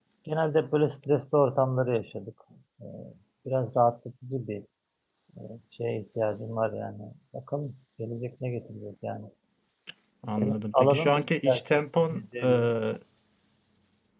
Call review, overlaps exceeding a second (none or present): present